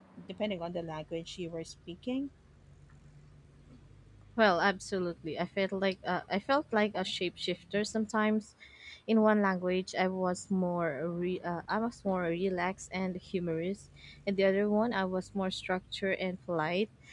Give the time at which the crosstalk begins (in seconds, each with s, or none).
none